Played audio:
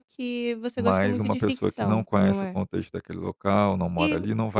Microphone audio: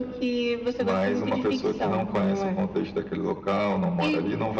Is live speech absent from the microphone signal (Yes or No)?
Yes